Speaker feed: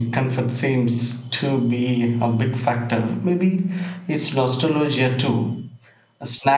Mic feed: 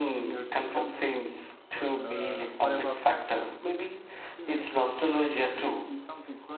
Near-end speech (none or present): present